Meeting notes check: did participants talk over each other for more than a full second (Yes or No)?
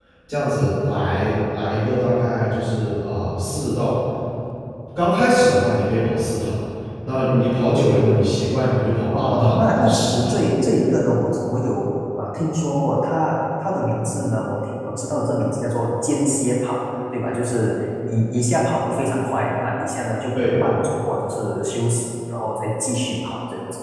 Yes